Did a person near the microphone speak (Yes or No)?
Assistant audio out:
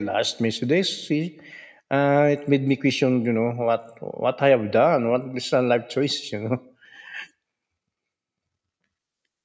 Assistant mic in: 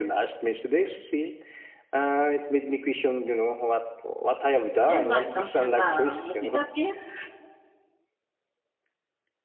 Yes